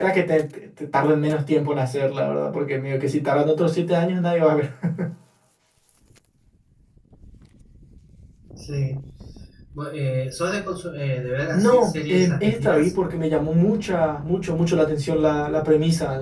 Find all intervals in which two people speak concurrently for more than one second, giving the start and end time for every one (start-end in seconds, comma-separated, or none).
11.5-12.9